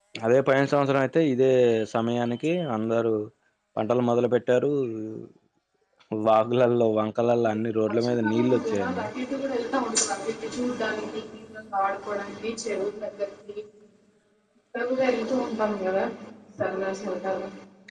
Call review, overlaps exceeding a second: present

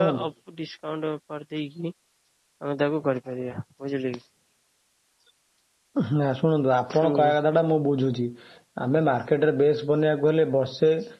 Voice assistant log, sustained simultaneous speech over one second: none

